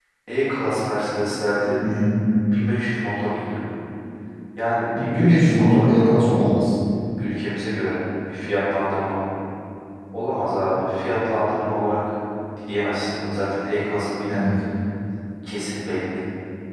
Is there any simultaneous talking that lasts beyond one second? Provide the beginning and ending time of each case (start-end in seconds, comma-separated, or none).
5.0-6.3